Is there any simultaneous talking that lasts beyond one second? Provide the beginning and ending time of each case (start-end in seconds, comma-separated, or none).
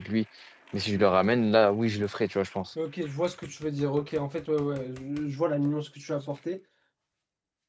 none